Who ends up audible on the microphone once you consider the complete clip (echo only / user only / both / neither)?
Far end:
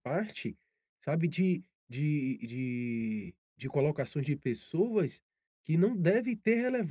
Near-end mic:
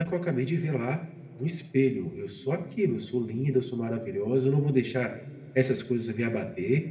user only